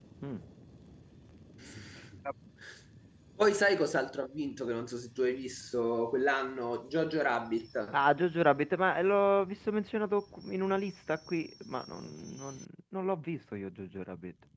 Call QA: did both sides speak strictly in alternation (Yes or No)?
Yes